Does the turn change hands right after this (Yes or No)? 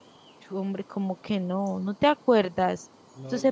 No